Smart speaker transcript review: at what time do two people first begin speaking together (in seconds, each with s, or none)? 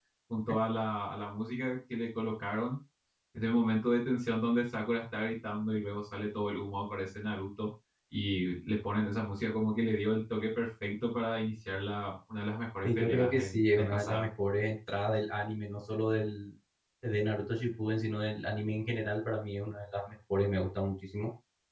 12.8 s